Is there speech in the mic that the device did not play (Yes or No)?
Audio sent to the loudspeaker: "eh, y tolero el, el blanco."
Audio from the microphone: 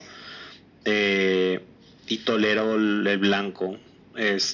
No